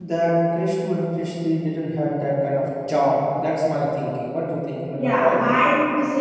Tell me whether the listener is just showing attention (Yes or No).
No